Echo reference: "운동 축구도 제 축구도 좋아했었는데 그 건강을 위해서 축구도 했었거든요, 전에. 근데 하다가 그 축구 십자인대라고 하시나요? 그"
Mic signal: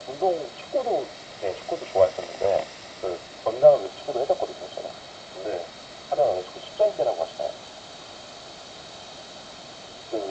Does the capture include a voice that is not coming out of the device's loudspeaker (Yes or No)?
No